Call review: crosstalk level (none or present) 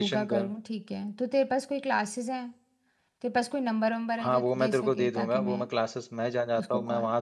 present